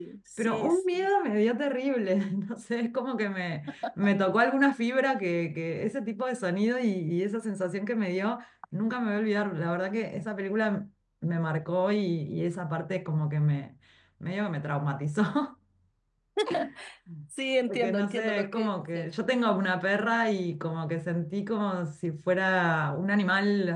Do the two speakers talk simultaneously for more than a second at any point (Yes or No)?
Yes